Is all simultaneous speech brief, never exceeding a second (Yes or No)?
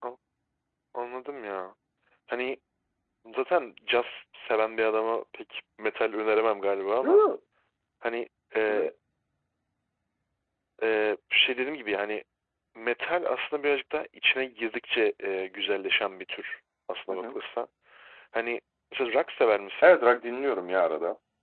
Yes